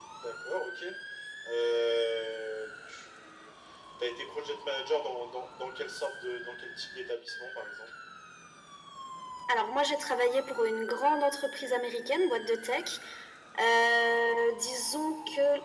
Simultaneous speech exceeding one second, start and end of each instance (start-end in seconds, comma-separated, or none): none